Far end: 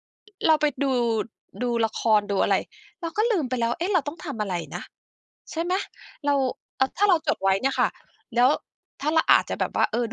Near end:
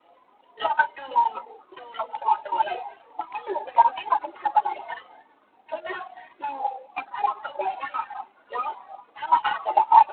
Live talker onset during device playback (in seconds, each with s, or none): none